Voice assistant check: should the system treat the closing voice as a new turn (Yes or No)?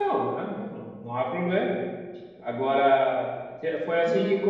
No